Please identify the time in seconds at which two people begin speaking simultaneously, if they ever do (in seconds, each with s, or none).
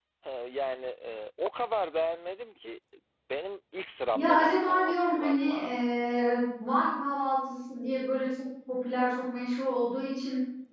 4.2 s